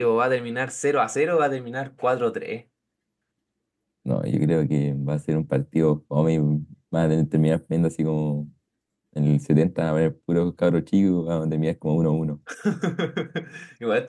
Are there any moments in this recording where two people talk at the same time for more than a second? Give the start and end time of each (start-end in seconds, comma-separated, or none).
none